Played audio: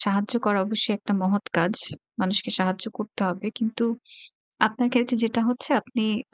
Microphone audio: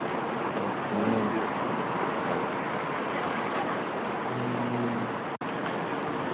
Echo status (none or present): none